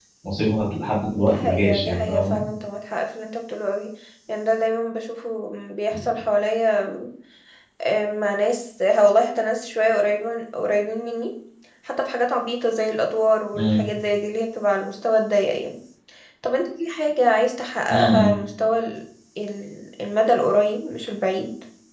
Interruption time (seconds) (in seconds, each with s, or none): 1.2 s